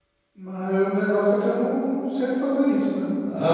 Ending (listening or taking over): taking over